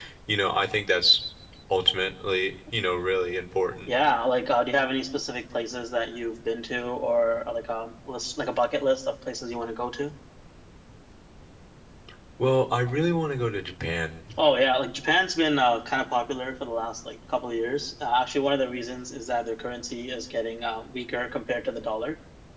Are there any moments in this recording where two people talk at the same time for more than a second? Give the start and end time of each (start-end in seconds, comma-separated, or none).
none